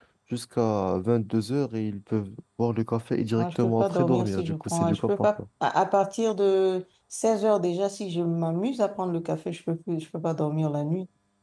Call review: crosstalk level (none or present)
present